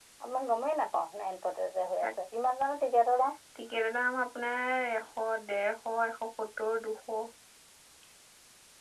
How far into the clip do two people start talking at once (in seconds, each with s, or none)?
none